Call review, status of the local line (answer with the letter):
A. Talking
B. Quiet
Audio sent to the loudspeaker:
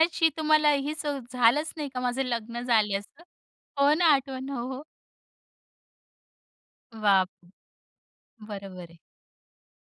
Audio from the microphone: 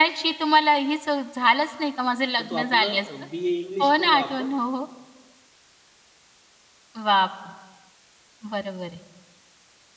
A